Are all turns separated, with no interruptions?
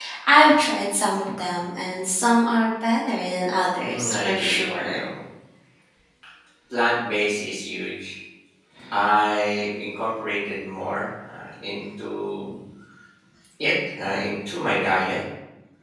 No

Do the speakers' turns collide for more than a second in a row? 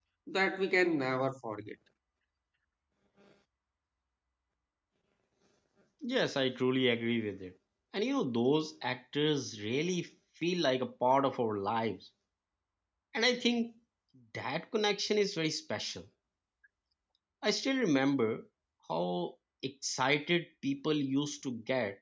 No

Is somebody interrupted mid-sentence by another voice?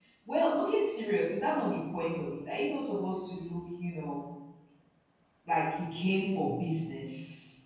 No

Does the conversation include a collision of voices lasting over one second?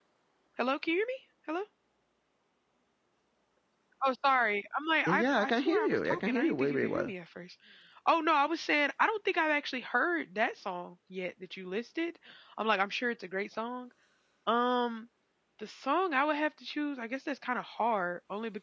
Yes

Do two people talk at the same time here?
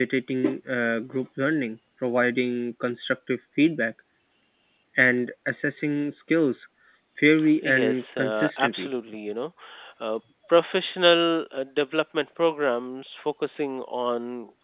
Yes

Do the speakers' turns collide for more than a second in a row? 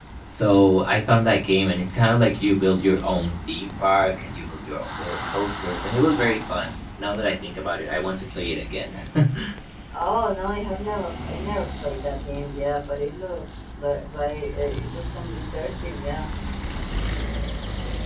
No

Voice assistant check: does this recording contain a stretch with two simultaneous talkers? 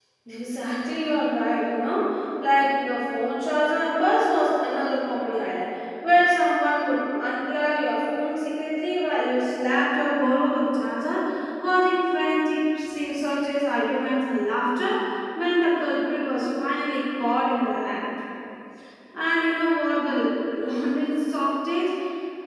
No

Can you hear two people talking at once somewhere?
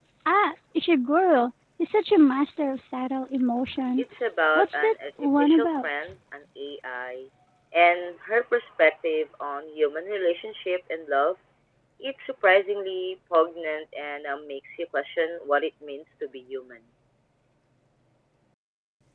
Yes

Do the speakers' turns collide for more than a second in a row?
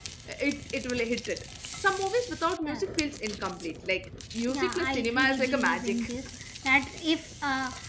Yes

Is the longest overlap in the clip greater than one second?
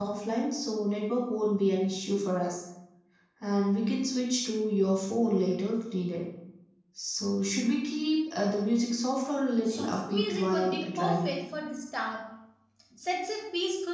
Yes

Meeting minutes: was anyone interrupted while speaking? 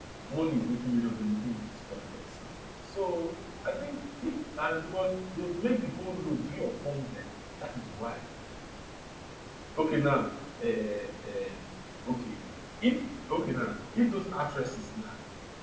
No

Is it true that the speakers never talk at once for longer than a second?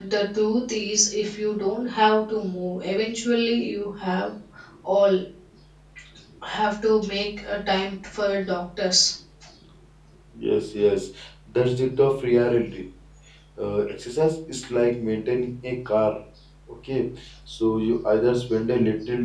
Yes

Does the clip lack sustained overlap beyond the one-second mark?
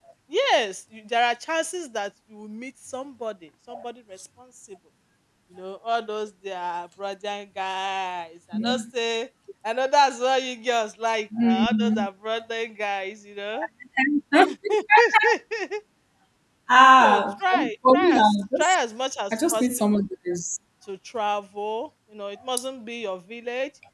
No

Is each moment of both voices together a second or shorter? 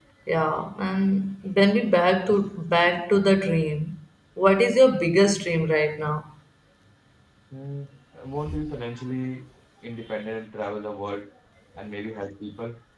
Yes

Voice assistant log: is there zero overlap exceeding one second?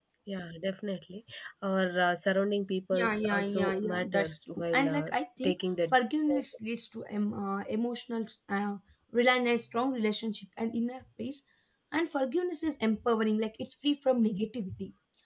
No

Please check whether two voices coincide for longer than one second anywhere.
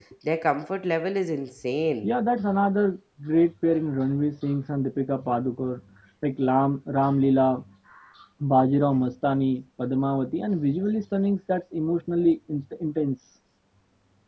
No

